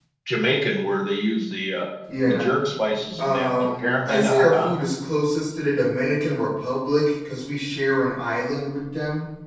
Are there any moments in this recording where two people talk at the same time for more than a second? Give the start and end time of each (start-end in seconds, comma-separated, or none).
3.2-4.7